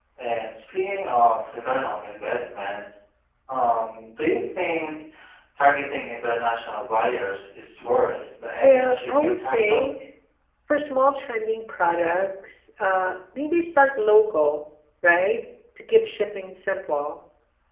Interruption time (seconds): 8.6 s

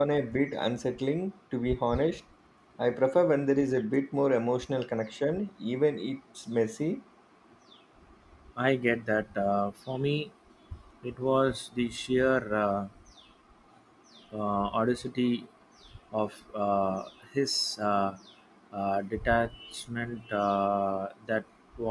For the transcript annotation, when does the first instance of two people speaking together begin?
none

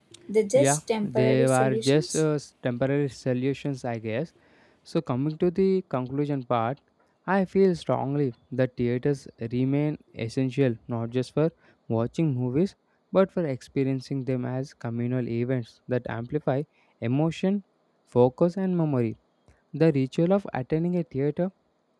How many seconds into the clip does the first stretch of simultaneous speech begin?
0.5 s

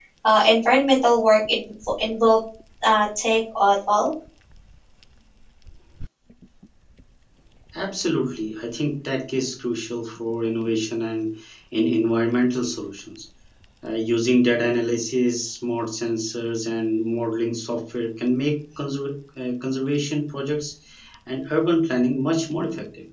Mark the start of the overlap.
none

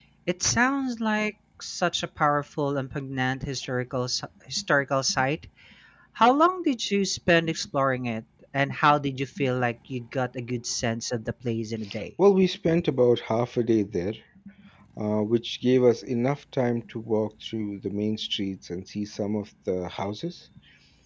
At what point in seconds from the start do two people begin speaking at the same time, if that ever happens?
none

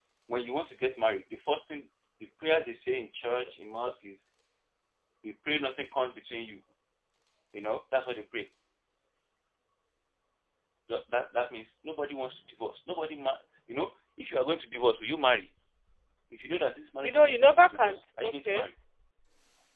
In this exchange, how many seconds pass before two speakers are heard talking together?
17.0 s

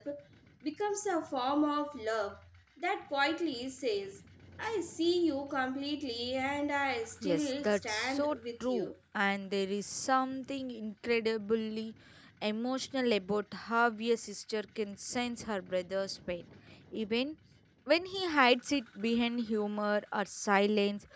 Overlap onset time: 7.2 s

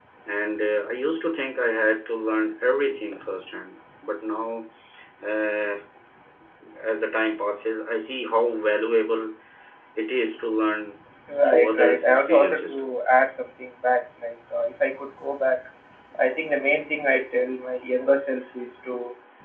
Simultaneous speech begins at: 11.4 s

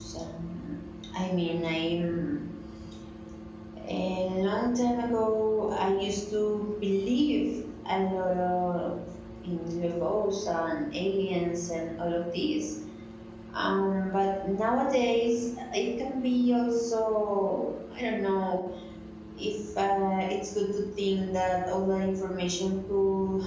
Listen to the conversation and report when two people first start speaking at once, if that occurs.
none

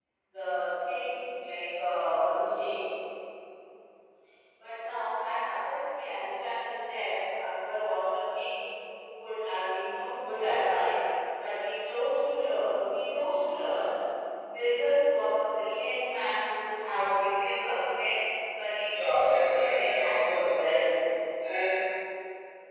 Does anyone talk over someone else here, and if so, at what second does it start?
18.8 s

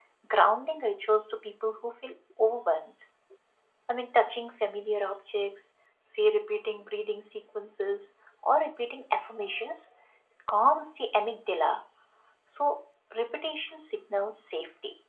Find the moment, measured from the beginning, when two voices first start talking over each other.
none

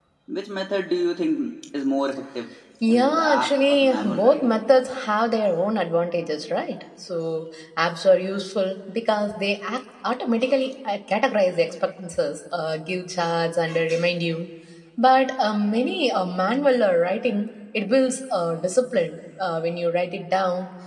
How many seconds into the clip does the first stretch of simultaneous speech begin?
2.8 s

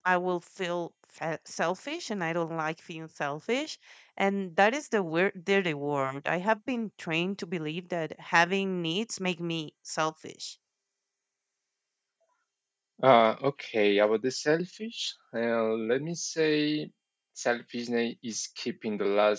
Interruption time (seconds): none

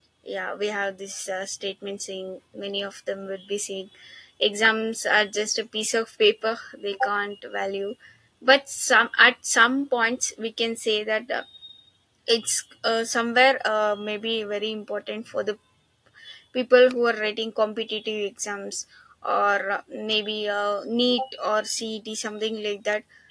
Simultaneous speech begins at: none

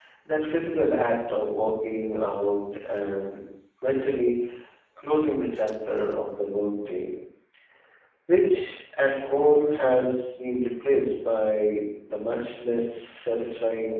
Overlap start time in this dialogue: none

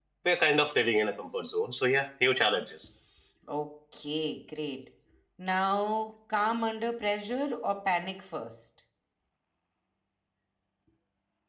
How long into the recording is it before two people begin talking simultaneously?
none

